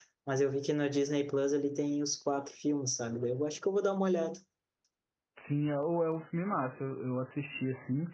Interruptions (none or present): none